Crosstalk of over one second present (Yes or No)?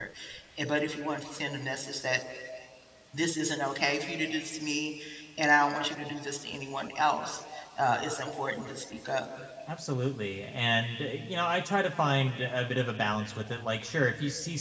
No